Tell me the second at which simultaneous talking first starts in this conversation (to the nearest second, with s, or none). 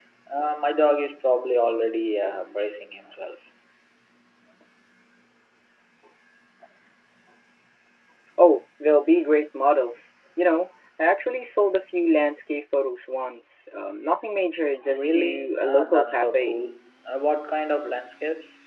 15 s